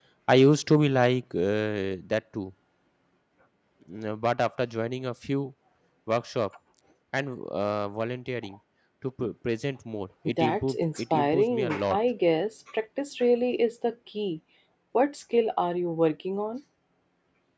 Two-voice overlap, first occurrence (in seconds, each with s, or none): 10.2 s